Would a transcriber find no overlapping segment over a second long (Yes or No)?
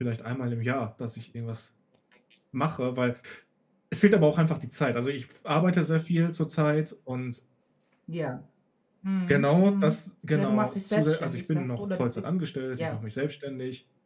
No